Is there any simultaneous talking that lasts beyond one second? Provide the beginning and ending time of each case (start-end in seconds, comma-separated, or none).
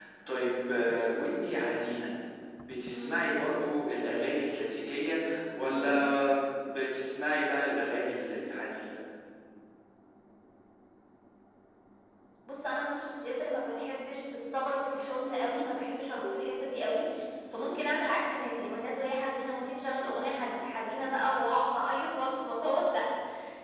none